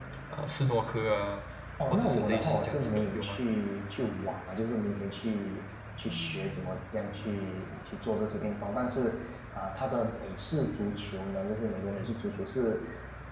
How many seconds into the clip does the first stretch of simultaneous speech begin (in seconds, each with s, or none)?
1.9 s